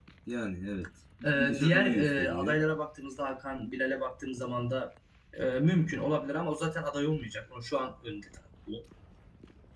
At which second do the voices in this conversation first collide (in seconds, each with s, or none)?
1.2 s